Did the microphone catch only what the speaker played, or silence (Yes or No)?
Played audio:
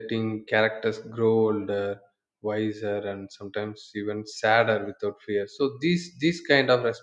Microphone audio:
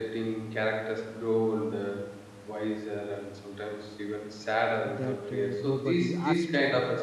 No